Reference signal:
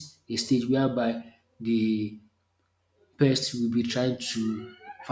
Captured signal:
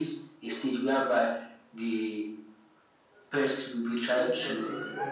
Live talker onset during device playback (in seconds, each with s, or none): 4.1 s